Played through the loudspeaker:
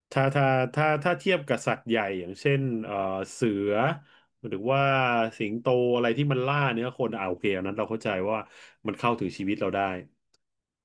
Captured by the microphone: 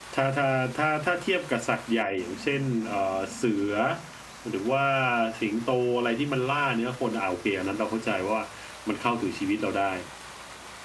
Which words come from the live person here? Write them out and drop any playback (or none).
none